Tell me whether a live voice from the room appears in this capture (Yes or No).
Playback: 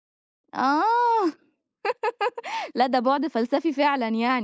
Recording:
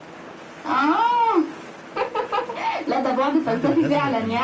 Yes